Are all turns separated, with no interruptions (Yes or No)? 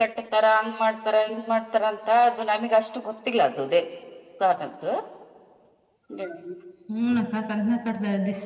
Yes